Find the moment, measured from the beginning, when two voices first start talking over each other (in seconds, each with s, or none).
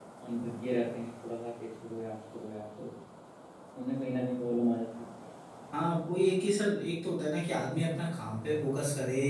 none